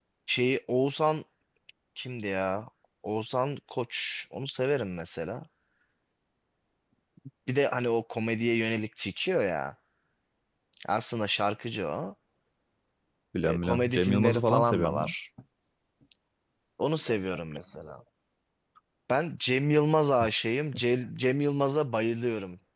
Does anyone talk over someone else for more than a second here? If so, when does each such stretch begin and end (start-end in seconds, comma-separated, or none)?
13.4-15.1